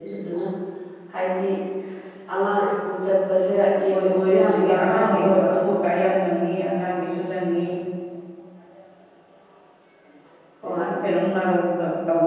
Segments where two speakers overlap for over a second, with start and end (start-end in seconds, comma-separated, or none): 3.9-5.5